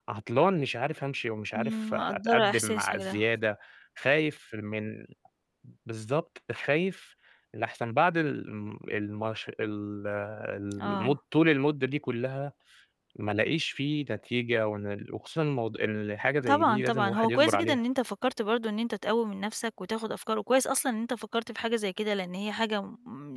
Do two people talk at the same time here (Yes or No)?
Yes